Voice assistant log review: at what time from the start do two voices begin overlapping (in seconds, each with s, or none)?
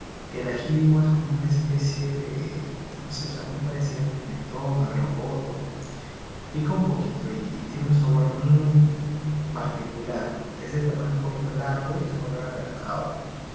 none